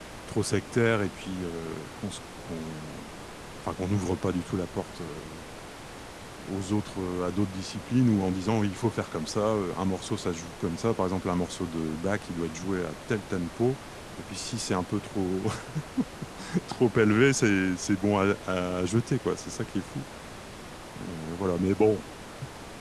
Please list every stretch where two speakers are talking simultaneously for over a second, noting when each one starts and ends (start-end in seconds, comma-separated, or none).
none